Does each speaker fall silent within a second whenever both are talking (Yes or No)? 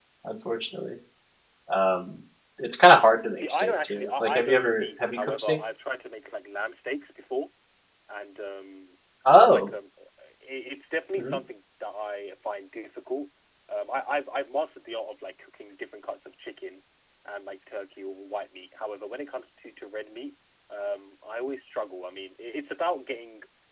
No